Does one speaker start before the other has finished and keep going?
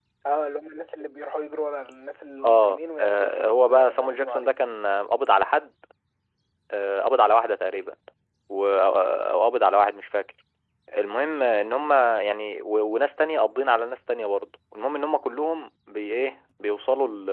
Yes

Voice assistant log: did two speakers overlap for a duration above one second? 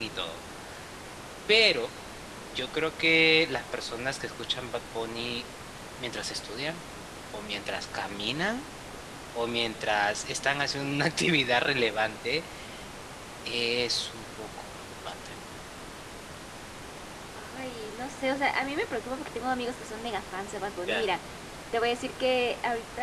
No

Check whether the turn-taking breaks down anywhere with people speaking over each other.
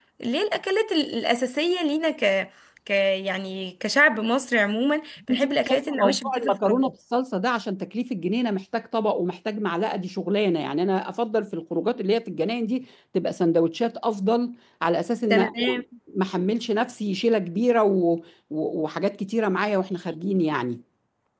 Yes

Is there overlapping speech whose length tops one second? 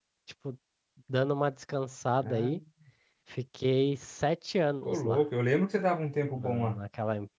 No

